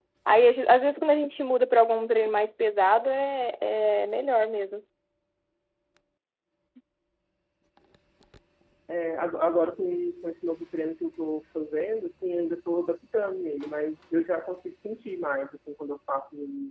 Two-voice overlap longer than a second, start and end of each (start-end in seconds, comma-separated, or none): none